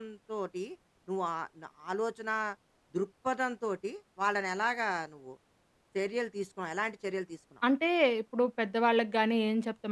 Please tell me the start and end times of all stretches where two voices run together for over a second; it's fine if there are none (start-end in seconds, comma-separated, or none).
none